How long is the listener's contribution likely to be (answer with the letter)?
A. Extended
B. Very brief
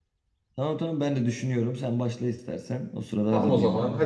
A